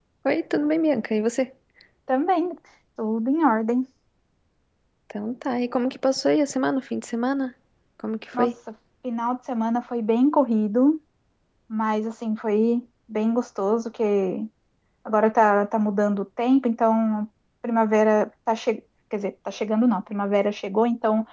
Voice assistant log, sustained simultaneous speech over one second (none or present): none